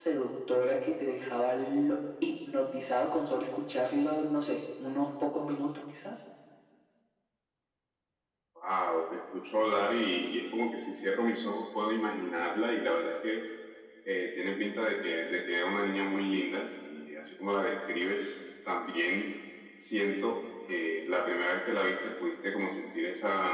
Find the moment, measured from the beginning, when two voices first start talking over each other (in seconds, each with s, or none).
none